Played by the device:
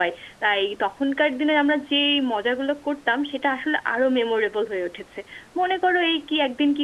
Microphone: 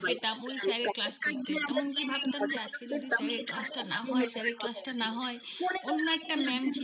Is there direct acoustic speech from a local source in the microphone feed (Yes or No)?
Yes